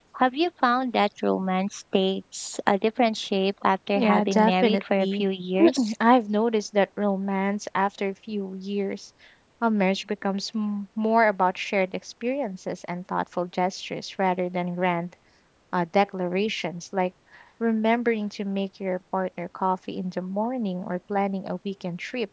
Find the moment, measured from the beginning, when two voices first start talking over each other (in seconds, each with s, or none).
4.0 s